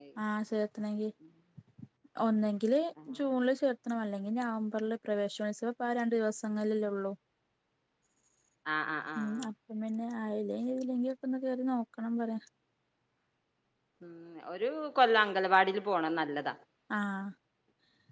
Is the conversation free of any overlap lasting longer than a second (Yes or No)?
Yes